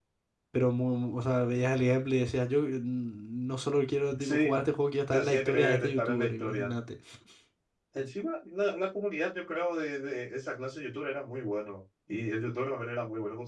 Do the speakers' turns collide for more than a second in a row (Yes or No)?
Yes